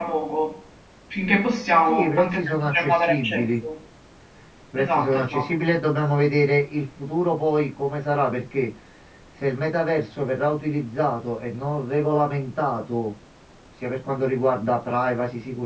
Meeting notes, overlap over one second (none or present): present